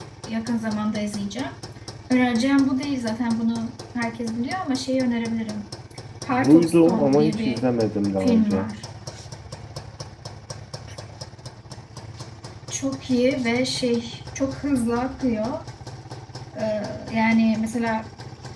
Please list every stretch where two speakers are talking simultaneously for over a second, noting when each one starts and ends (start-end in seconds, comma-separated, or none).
6.4-7.6